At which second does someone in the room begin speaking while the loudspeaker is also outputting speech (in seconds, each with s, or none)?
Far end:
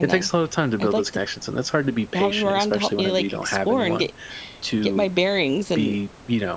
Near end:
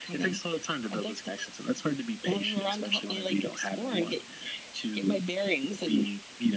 none